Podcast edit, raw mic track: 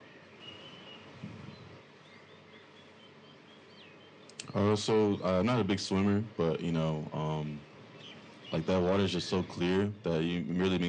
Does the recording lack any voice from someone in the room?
Yes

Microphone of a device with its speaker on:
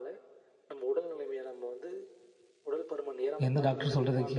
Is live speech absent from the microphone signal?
No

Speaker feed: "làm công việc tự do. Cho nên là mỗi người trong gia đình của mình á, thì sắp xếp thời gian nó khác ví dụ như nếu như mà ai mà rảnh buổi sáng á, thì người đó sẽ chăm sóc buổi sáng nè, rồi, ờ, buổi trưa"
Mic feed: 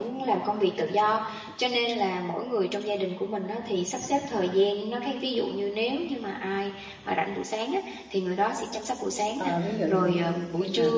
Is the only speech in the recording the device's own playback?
No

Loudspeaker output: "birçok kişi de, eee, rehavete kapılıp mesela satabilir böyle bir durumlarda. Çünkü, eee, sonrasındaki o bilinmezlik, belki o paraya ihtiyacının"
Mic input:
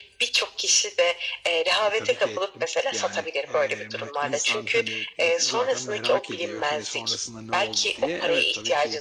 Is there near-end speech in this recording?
Yes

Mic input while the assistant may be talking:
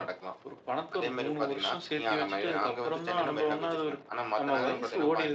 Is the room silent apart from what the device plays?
Yes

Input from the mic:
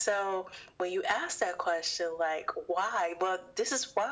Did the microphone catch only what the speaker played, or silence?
Yes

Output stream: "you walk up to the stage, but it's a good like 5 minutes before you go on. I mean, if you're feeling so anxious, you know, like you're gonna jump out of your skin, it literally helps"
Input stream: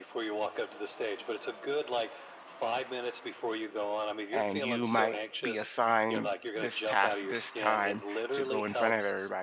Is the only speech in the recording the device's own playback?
No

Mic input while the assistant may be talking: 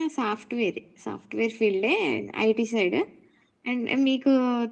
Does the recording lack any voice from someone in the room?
Yes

